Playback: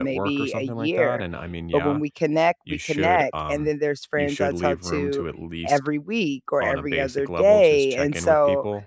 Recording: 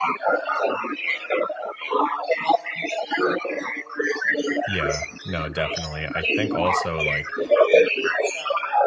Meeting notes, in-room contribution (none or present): present